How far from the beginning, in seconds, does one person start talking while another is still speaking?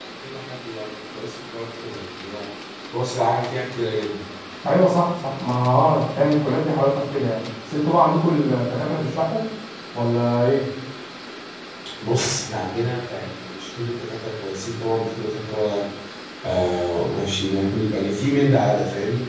none

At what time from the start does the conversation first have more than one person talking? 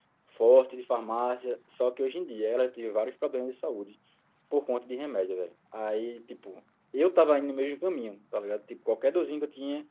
none

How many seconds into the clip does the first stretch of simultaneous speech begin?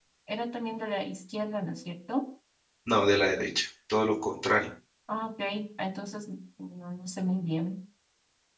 none

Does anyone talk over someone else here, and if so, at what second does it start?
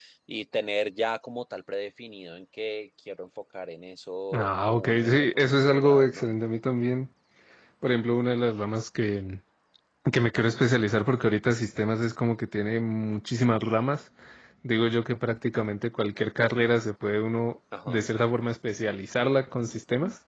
4.3 s

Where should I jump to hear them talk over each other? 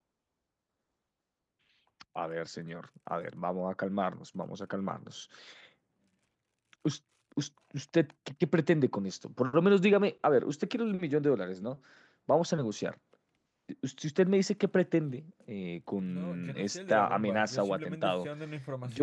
16.1 s

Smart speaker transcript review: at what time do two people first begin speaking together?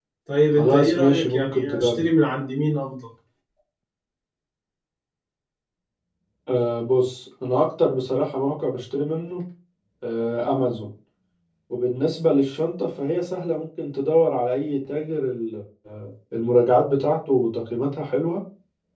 0.6 s

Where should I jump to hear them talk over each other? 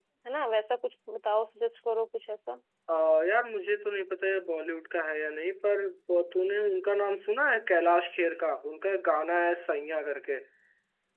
none

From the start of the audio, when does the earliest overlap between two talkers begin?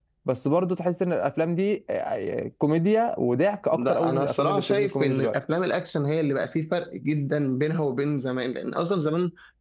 3.7 s

